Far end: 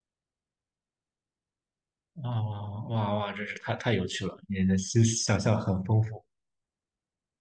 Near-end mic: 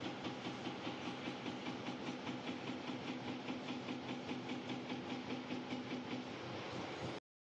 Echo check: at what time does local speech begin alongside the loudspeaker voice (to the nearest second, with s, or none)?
none